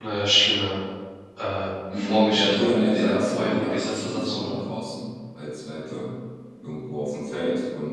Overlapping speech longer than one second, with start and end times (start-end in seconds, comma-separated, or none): 1.9-4.6